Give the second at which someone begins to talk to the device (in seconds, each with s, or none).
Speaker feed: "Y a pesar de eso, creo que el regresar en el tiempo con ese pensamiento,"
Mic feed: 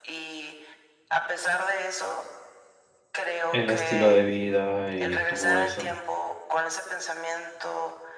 3.5 s